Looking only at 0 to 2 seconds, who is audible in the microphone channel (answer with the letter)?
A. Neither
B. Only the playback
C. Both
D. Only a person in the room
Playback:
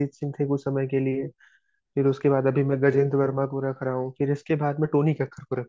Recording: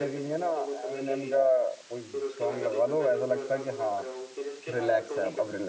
C